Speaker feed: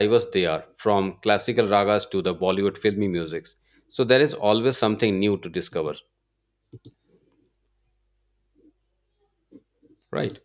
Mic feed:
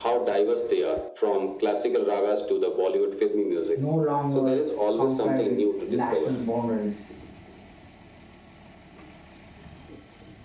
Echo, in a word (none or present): present